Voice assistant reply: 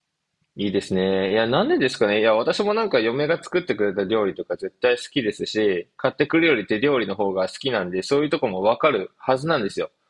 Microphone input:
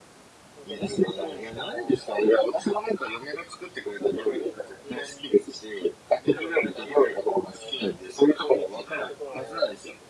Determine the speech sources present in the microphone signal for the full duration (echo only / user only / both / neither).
both